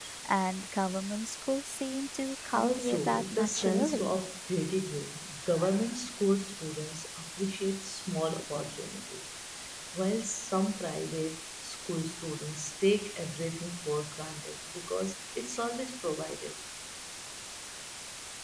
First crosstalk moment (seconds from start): 2.5 s

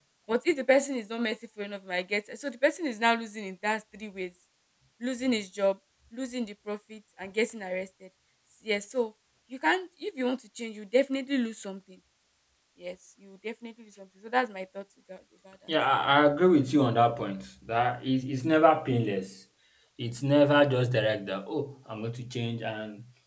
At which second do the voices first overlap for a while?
none

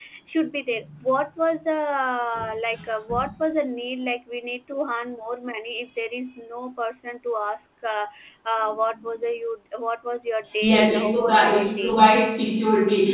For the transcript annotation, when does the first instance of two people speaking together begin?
10.6 s

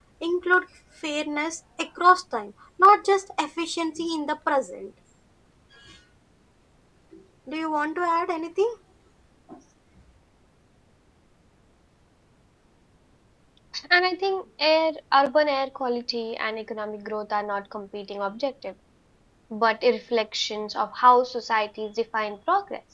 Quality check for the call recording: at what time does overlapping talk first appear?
none

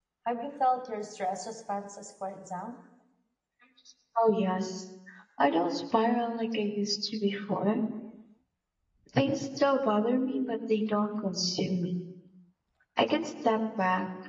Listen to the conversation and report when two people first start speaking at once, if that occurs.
none

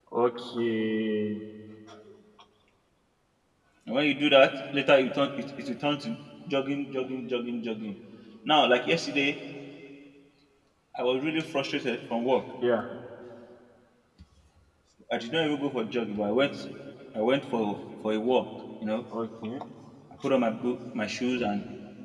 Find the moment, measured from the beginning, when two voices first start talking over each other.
none

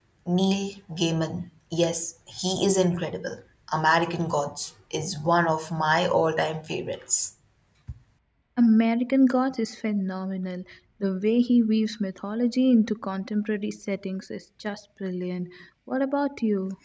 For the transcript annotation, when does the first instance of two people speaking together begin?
none

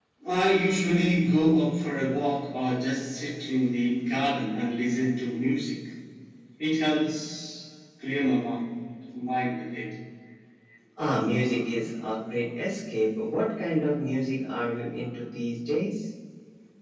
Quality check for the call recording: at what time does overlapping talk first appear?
none

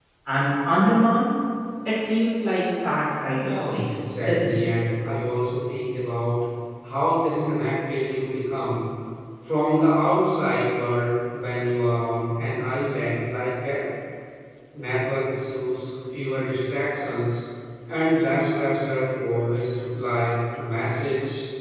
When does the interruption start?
3.4 s

